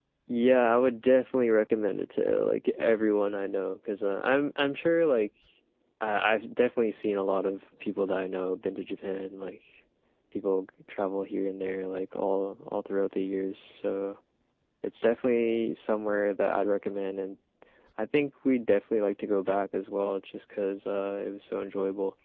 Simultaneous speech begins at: none

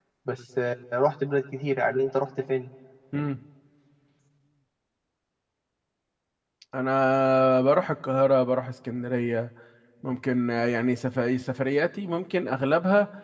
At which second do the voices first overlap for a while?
none

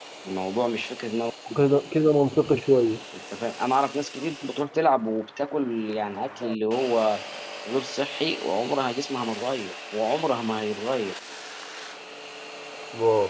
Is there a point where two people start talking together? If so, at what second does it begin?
none

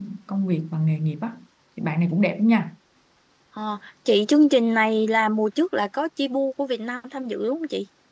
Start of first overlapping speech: none

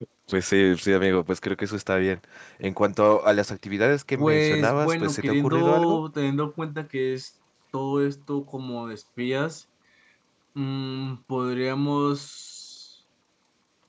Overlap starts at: 4.2 s

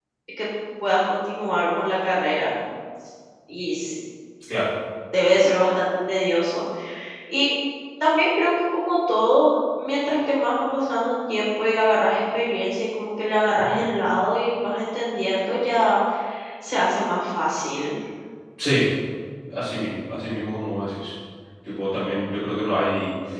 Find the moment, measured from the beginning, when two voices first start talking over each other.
none

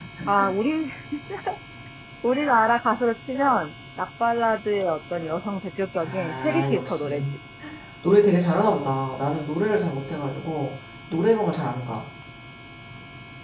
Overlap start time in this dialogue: 6.0 s

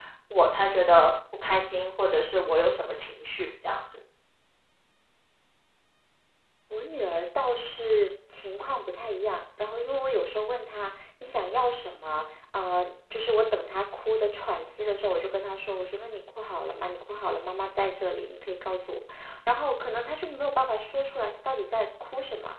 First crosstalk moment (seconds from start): none

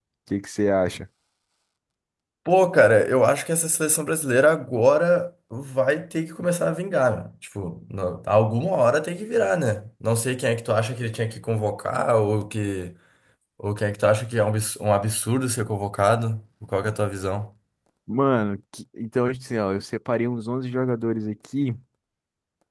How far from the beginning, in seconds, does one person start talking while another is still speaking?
none

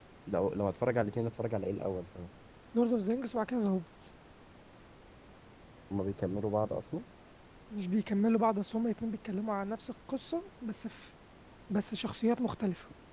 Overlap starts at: none

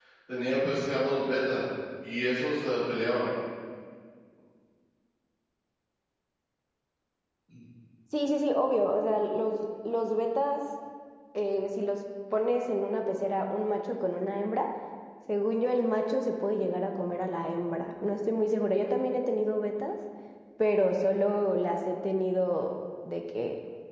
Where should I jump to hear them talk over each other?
none

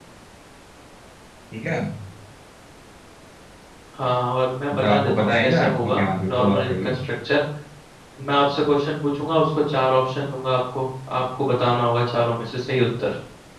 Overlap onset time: 4.7 s

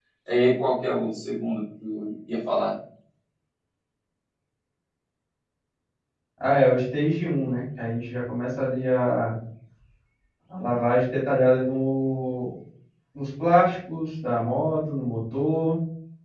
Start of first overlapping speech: none

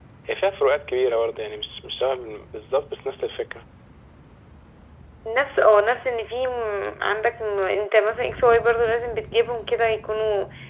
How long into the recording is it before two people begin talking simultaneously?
none

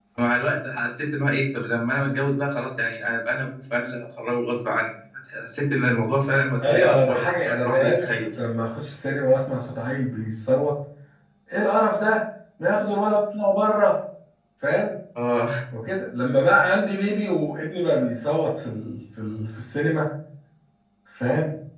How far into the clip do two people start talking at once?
6.6 s

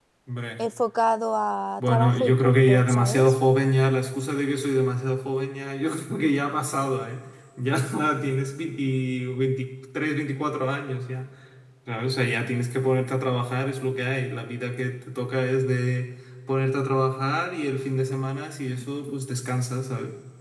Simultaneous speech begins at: 1.8 s

